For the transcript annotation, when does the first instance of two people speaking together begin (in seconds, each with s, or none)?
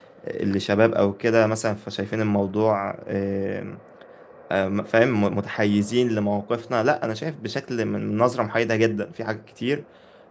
none